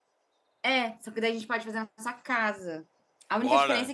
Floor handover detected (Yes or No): No